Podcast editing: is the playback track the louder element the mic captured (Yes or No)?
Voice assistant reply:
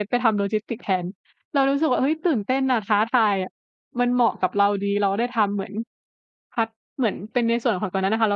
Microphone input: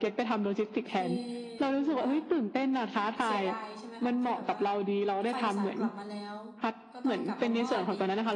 Yes